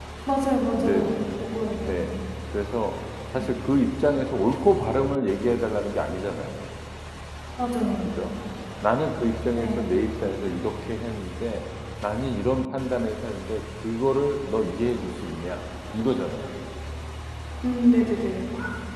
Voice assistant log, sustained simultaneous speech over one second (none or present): none